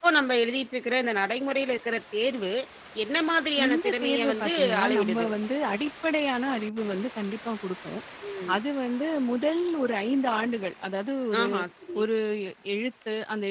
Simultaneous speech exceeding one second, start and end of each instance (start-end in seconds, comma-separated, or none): 3.7-5.3